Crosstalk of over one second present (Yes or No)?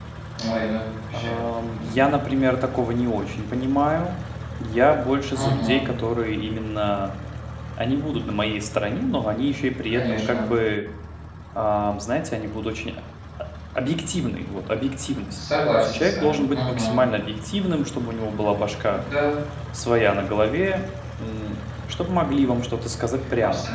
Yes